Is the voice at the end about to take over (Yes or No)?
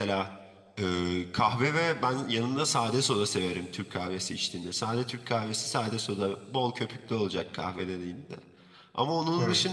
No